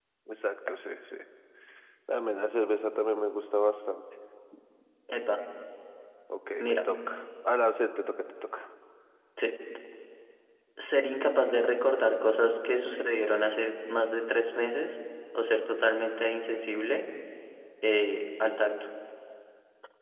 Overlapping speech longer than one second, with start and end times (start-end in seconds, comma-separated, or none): none